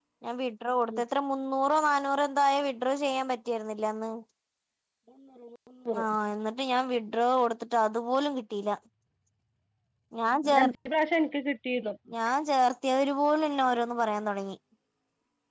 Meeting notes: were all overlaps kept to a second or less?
Yes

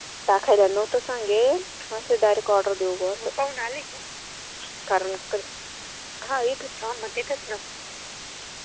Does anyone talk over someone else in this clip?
No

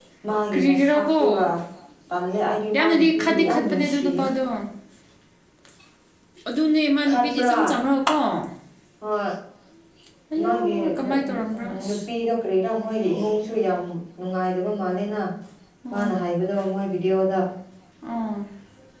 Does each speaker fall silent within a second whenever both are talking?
No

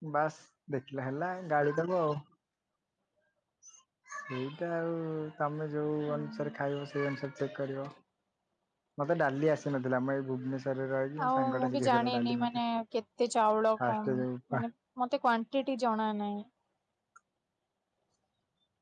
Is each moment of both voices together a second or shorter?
No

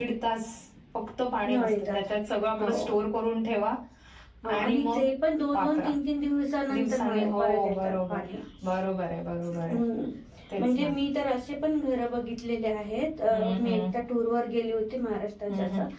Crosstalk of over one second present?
Yes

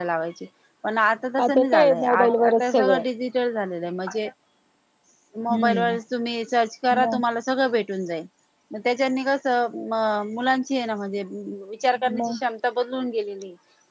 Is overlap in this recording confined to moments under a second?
No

